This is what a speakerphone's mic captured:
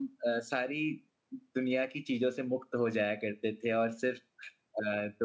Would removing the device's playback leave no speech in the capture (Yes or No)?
No